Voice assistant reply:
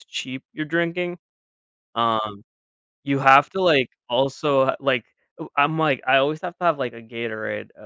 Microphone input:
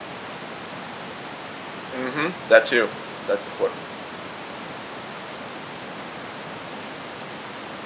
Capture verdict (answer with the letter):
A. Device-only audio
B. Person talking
B